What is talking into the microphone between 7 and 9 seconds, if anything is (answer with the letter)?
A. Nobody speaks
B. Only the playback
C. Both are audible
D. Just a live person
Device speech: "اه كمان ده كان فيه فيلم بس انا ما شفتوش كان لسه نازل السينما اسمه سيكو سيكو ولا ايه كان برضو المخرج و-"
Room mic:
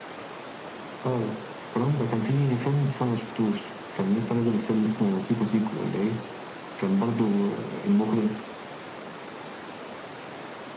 B